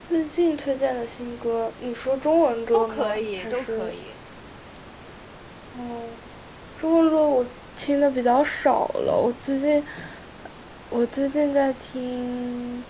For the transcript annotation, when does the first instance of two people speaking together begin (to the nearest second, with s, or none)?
3 s